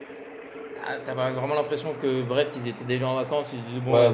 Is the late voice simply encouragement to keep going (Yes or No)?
No